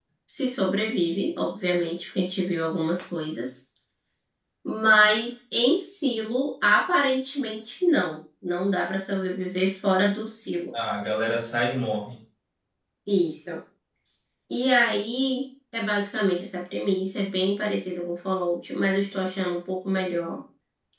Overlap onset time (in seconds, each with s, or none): none